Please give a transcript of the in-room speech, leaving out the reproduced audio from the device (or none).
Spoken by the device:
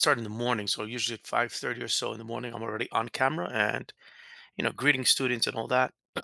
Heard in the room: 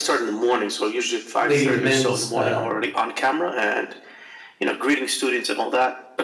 leading the men's uh,